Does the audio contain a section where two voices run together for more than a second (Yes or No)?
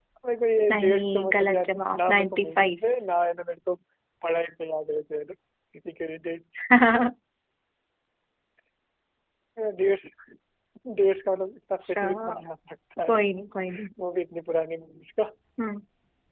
Yes